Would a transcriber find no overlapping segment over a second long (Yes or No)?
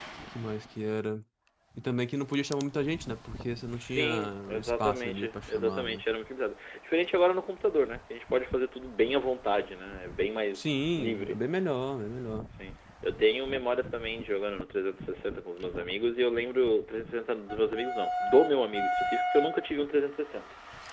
No